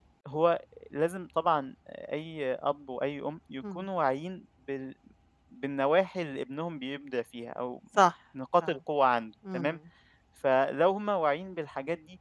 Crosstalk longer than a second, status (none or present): none